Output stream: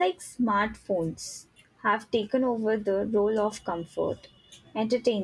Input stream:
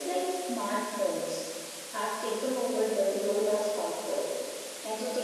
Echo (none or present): present